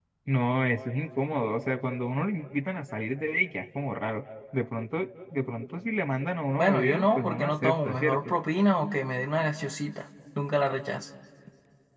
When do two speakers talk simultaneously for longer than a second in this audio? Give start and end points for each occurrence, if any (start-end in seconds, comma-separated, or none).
6.6-8.2